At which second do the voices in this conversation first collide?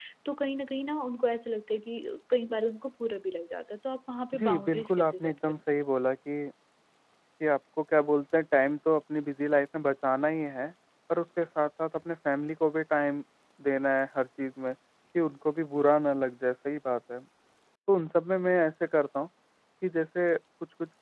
4.3 s

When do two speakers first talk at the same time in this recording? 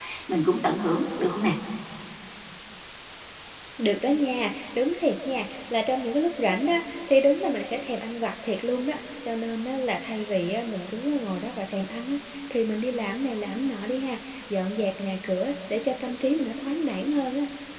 none

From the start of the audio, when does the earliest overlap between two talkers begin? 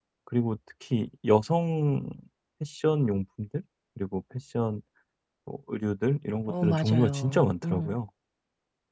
6.5 s

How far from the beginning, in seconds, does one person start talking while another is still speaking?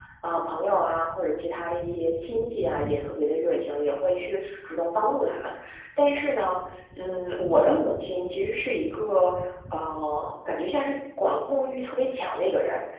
none

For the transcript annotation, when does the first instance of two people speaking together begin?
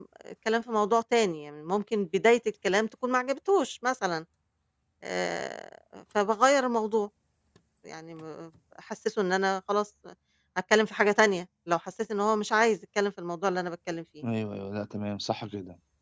none

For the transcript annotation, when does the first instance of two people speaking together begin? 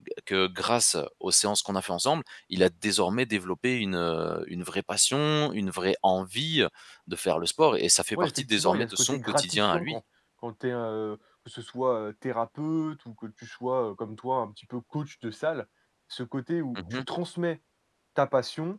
8.2 s

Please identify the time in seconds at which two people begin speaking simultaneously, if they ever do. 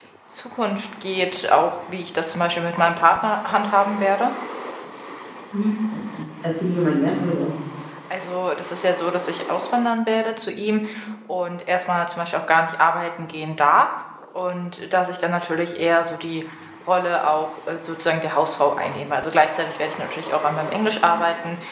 none

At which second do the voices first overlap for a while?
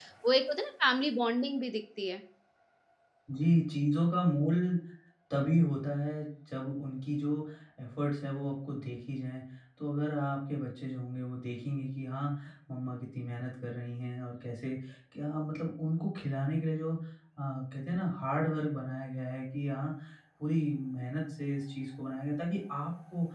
none

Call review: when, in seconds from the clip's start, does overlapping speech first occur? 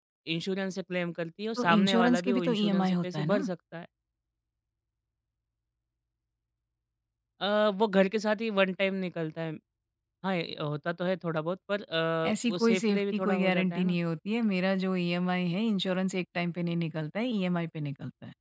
1.6 s

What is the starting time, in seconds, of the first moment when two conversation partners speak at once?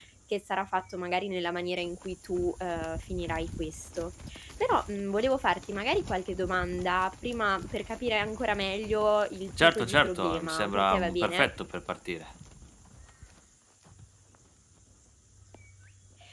9.6 s

